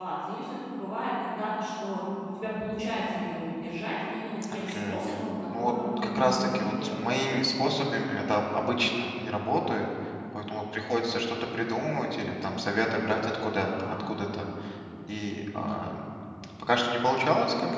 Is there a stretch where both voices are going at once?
Yes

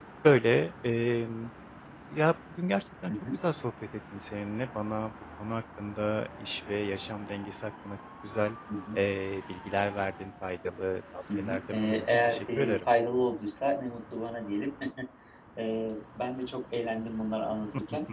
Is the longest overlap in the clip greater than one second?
Yes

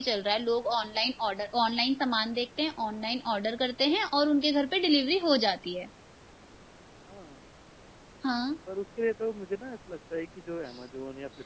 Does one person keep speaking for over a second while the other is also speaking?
No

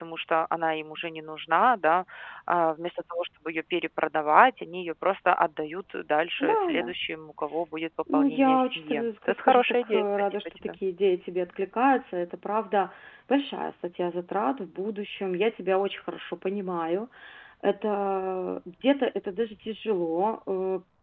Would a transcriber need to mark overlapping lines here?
Yes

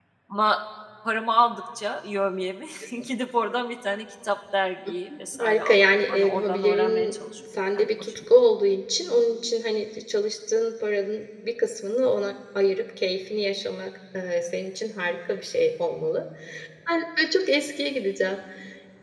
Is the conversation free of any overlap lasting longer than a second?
No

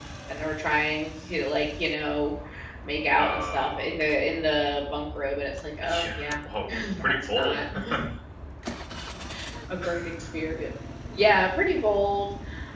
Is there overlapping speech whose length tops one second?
Yes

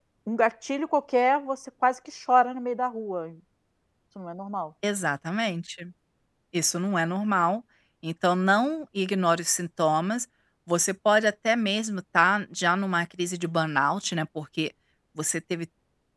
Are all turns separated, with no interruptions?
Yes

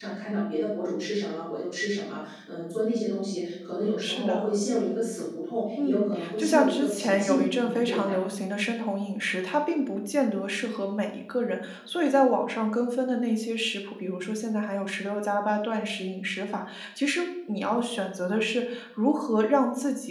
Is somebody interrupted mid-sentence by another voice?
Yes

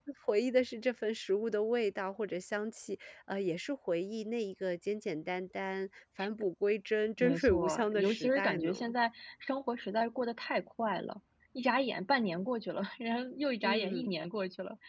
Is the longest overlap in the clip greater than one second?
Yes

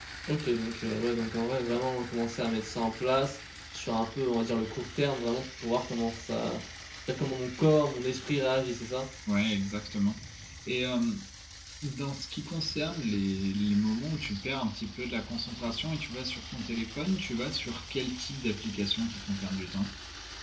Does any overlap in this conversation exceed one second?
No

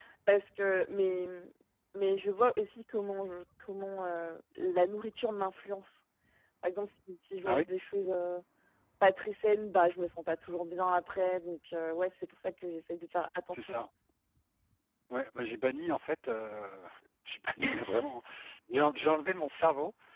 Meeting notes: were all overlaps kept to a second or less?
Yes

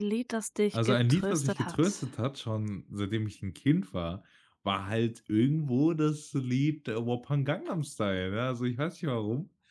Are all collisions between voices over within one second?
No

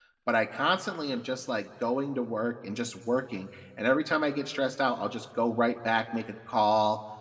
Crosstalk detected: No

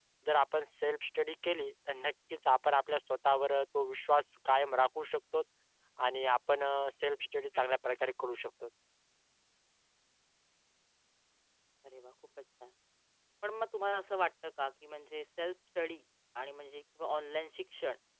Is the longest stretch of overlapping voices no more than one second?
Yes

